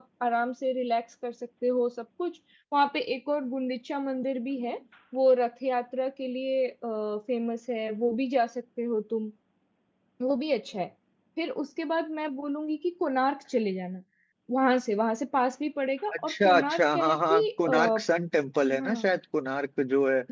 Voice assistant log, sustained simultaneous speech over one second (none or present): present